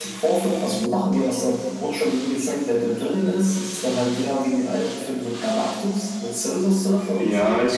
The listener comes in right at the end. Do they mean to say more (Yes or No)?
Yes